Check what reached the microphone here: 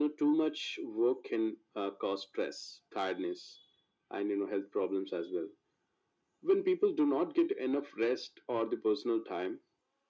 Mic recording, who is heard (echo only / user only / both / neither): echo only